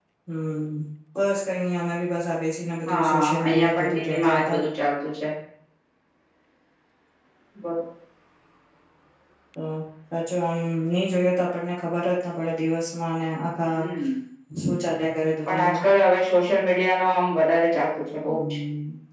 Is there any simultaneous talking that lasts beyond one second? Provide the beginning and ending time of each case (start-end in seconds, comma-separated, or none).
2.9-4.6